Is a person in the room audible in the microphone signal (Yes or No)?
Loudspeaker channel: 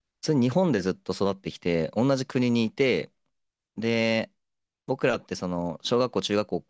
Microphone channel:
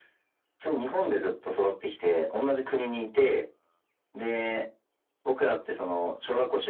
No